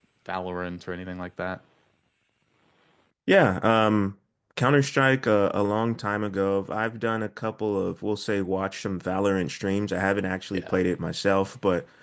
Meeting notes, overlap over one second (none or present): none